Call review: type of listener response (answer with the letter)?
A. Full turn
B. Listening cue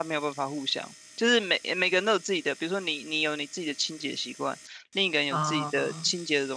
B